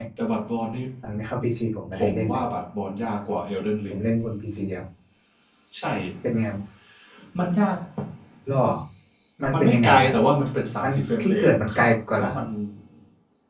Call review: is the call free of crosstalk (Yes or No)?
No